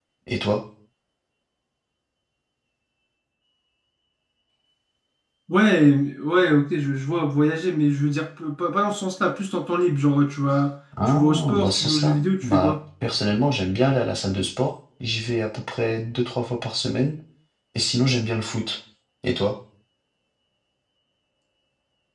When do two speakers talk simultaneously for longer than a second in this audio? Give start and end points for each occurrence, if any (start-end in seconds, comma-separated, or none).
11.1-12.8